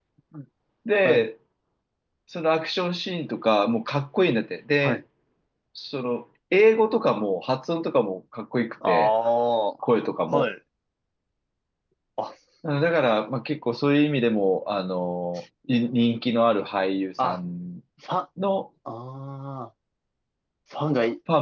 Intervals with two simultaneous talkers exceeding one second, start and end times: none

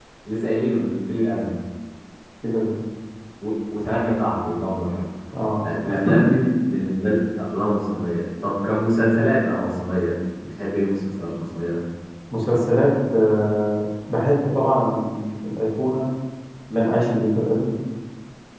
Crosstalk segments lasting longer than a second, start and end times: none

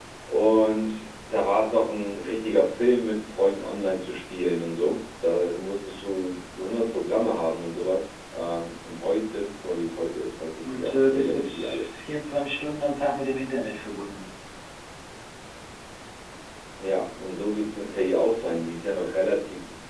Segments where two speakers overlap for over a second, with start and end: 10.7-11.9

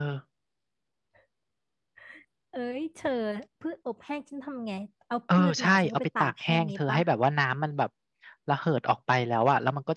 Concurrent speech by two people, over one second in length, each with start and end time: 5.3-7.0

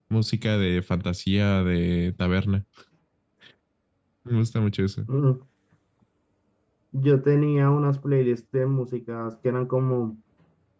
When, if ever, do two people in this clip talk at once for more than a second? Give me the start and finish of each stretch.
none

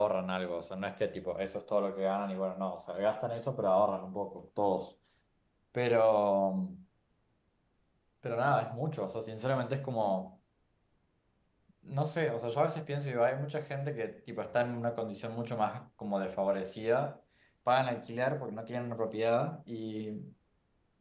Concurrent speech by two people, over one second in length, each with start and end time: none

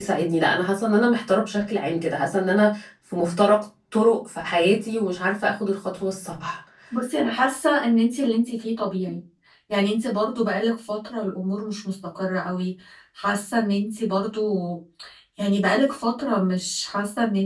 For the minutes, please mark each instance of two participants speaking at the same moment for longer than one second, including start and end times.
none

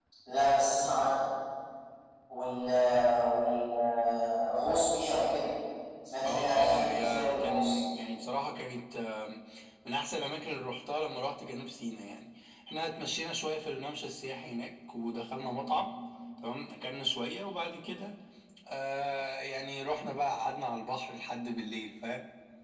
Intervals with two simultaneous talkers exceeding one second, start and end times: 6.2-7.7

